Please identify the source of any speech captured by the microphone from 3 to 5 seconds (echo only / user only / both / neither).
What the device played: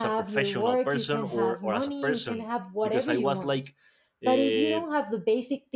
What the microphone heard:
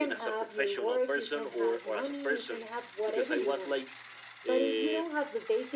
echo only